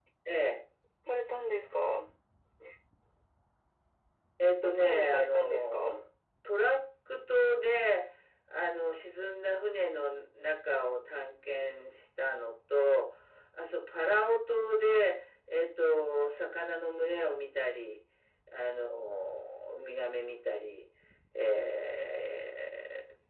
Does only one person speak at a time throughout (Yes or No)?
No